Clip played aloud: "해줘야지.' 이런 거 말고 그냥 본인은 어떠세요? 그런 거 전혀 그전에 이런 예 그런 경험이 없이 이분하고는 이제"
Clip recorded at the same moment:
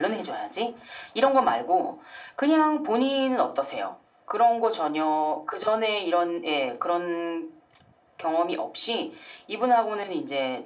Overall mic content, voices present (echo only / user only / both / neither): echo only